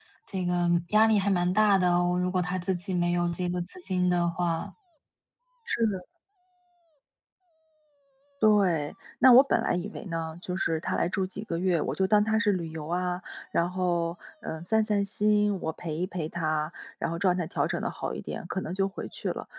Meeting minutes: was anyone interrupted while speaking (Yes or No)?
No